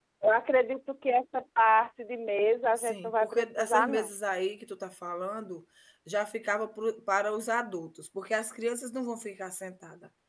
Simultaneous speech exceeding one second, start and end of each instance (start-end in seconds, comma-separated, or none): 2.8-4.1